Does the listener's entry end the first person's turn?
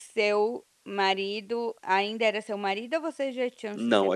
Yes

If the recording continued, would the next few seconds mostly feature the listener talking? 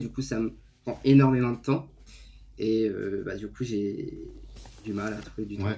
Yes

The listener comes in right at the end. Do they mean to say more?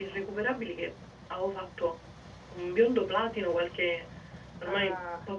No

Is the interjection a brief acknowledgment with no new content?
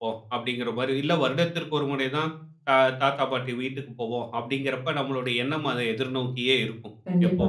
Yes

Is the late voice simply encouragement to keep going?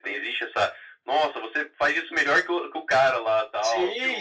No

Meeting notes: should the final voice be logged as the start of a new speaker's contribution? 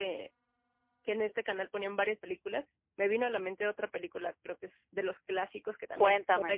No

